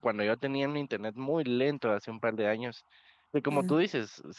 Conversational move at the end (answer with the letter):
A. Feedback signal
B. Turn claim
A